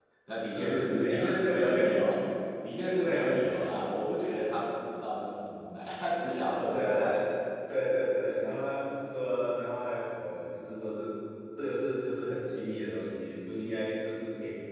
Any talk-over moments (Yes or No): Yes